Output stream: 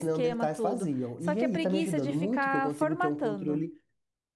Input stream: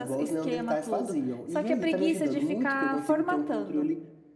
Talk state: echo only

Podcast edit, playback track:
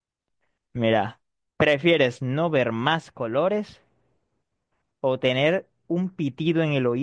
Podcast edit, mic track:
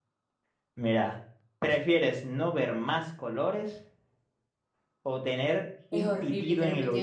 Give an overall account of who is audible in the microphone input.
both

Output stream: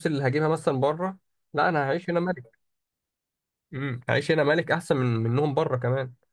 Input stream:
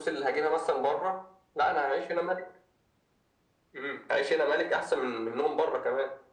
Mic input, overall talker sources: echo only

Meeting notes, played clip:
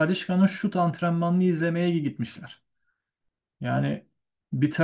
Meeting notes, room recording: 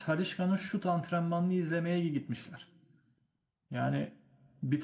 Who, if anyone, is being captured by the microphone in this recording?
echo only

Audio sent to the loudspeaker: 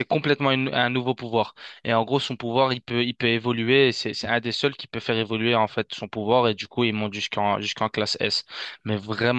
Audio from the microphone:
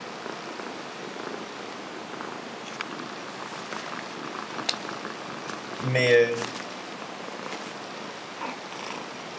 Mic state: user only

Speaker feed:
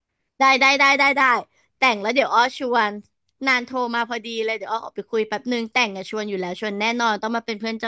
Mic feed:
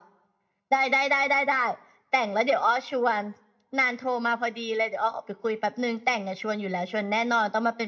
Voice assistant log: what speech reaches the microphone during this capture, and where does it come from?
echo only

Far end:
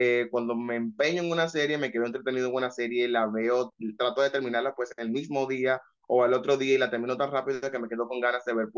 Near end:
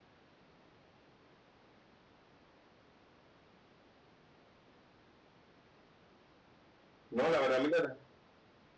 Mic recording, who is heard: user only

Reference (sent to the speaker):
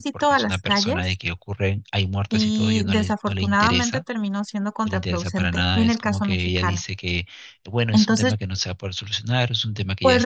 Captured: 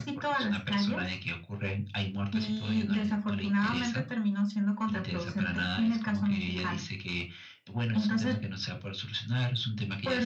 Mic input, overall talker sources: echo only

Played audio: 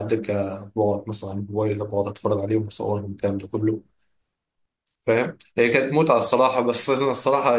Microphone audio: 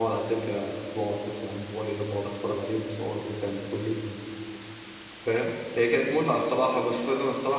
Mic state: echo only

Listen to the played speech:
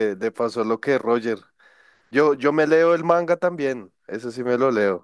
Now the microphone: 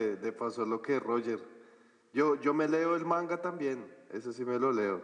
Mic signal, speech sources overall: echo only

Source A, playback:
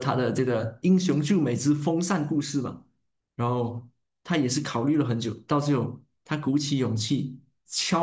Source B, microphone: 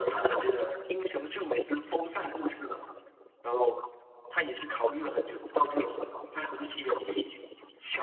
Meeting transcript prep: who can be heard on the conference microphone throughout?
echo only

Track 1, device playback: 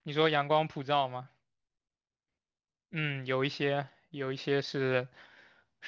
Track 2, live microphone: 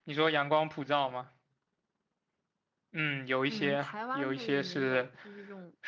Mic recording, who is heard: both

